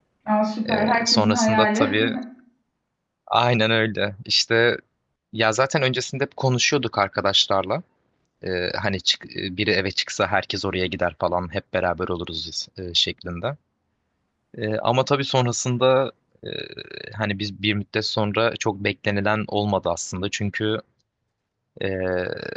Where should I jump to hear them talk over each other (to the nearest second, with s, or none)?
1 s